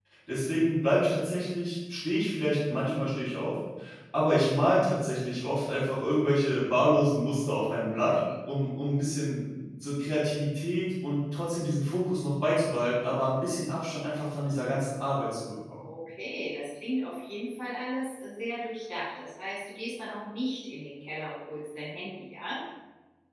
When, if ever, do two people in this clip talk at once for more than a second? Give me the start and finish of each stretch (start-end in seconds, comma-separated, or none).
none